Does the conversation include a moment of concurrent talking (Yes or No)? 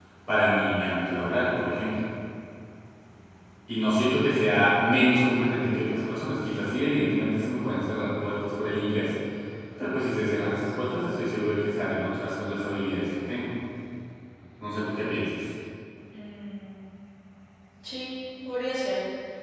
No